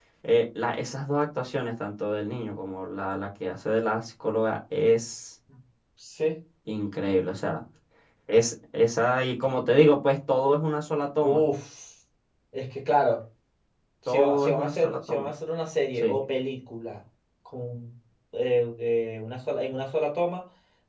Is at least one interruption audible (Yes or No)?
Yes